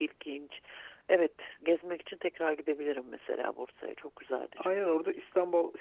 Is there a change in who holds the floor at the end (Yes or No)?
Yes